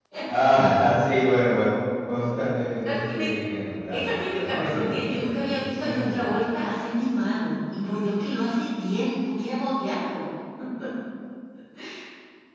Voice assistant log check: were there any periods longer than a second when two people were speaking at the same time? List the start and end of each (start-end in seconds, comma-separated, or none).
3.9-6.3